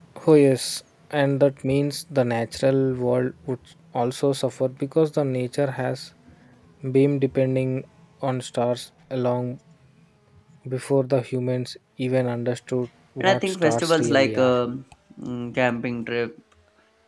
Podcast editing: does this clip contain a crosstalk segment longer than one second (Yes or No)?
Yes